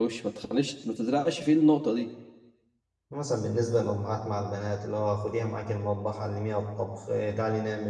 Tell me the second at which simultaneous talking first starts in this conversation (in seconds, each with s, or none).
none